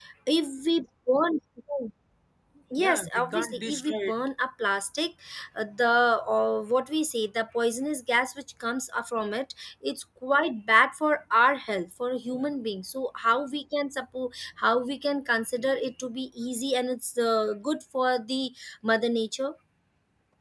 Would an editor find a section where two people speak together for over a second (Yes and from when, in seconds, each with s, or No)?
Yes, from 2.8 s